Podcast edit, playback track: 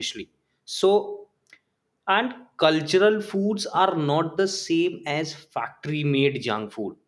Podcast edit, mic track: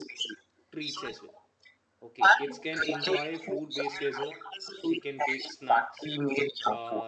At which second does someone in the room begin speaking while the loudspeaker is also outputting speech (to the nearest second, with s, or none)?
1 s